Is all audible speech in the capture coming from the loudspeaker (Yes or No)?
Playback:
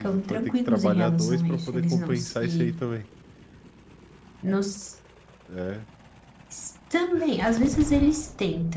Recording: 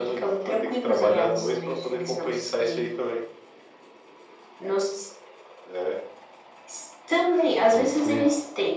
No